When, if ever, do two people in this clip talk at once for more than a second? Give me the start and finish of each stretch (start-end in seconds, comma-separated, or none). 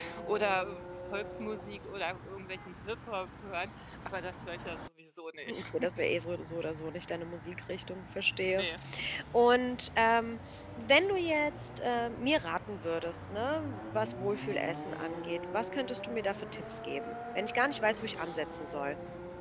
none